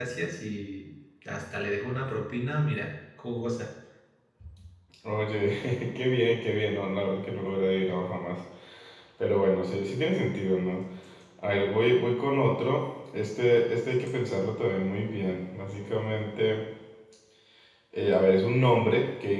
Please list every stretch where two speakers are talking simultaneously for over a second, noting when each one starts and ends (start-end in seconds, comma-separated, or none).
none